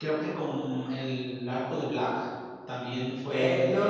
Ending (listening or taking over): taking over